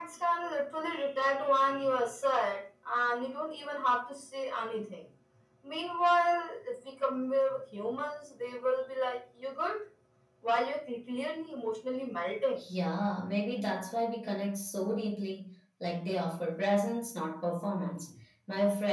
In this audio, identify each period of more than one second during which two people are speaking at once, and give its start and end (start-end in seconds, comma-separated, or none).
none